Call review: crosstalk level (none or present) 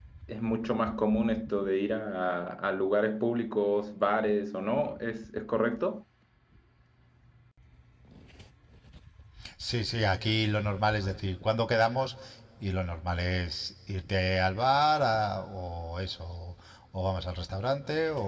none